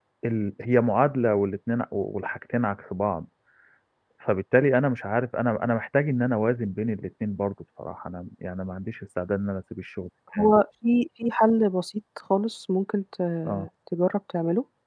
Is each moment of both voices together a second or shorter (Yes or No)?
Yes